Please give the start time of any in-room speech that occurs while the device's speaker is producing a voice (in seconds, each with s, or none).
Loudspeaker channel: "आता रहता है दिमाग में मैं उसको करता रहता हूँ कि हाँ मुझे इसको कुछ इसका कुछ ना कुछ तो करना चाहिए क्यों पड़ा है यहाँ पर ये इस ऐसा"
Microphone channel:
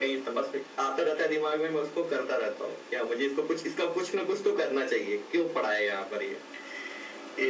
none